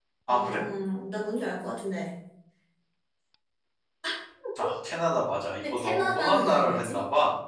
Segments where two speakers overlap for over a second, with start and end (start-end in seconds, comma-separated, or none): 5.7-7.0